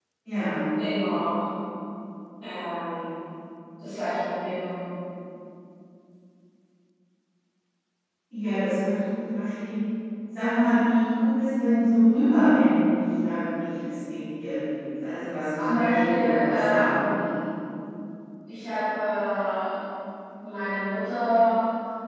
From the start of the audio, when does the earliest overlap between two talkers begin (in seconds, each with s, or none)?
15.6 s